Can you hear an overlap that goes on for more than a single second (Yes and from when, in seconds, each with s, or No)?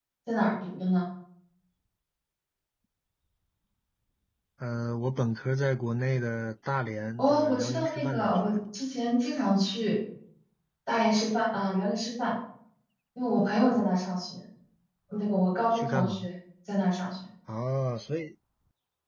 Yes, from 7.2 s